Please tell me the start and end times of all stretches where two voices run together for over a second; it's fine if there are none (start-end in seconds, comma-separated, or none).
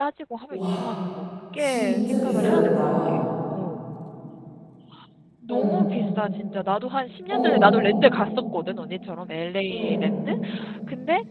1.6-3.2